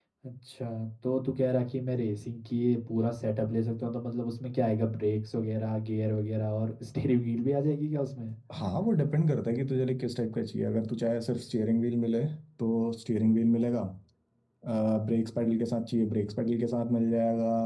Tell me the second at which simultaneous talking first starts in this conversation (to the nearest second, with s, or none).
none